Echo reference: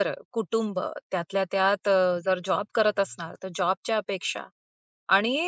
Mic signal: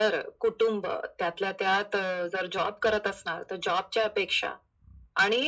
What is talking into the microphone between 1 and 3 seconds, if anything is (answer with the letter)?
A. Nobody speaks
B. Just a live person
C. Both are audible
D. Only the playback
D